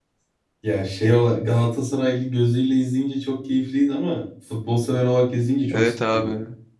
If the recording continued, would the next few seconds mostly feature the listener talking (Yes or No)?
Yes